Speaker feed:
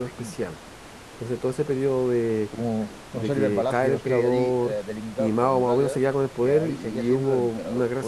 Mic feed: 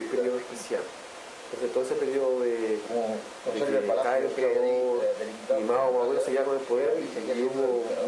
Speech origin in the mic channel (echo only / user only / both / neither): echo only